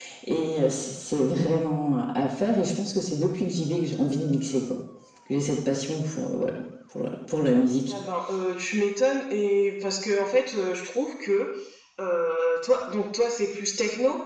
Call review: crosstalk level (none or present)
none